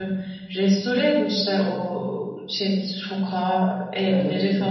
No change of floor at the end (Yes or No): No